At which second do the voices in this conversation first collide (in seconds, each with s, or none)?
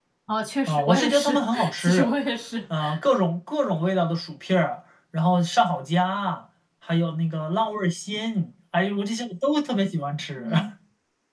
0.7 s